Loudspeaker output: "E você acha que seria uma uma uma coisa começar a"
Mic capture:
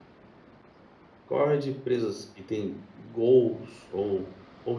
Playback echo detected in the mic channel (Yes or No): No